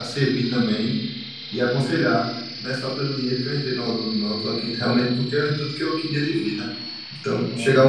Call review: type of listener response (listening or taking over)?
listening